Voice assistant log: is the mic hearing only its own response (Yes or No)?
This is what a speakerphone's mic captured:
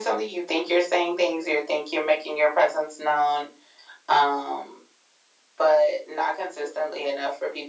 Yes